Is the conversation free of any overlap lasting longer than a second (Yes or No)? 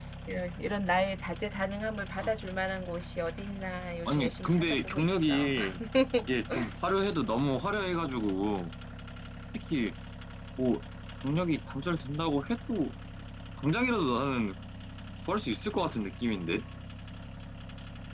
No